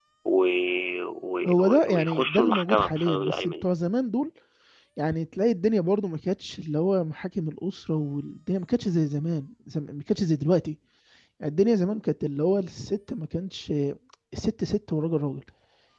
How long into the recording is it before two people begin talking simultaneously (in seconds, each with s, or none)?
1.5 s